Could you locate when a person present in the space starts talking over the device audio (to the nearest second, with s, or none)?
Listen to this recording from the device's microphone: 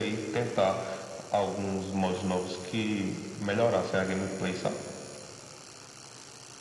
none